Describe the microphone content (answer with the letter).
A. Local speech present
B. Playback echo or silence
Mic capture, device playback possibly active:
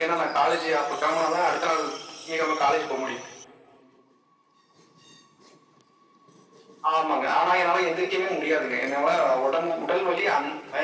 B